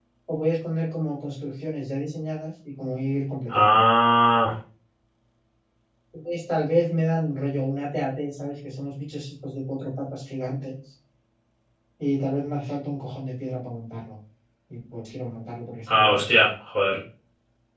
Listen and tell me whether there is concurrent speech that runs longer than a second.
No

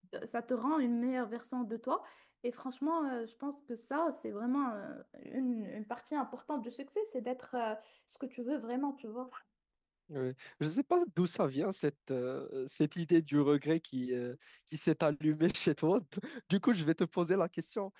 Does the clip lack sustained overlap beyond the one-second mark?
Yes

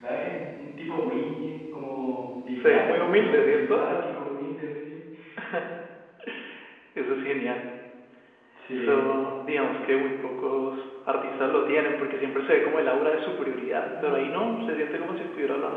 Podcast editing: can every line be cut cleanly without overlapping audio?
No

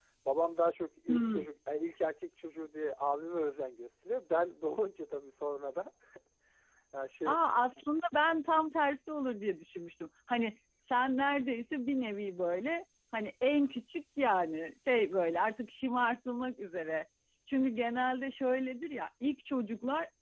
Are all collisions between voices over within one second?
Yes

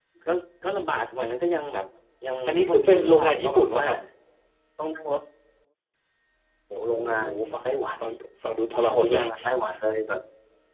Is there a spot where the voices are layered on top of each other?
Yes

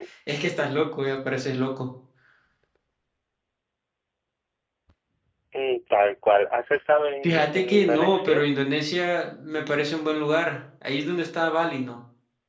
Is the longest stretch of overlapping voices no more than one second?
No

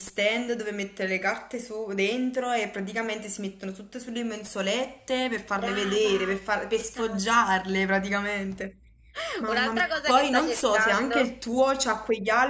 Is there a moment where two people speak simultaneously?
Yes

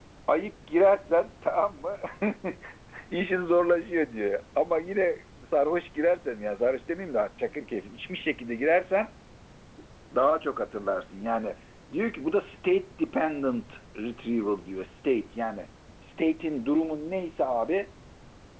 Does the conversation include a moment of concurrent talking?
No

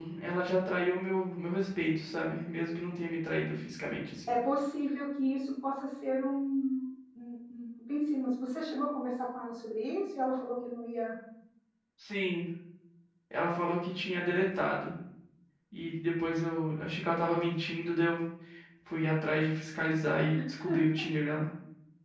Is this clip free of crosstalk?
Yes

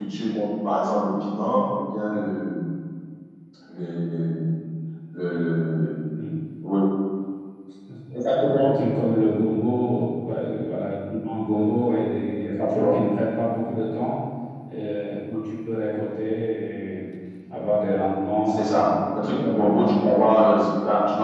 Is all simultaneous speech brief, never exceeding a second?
No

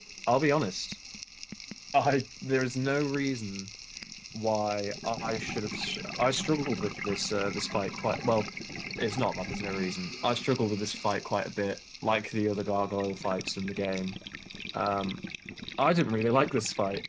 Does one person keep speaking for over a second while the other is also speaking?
No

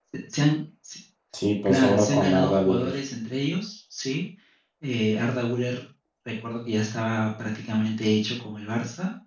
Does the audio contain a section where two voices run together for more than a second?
Yes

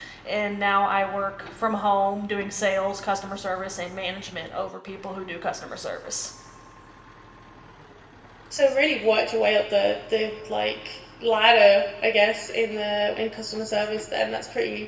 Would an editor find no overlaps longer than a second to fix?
Yes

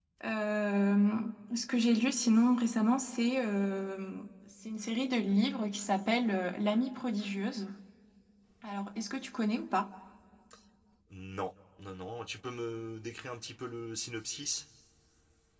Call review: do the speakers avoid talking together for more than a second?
Yes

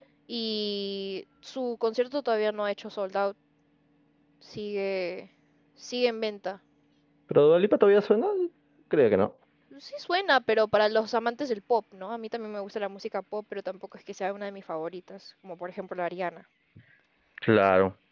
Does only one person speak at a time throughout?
Yes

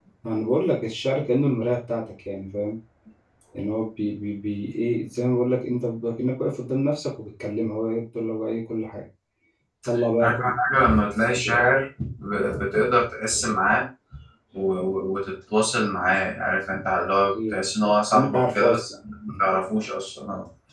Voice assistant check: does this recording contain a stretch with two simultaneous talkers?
Yes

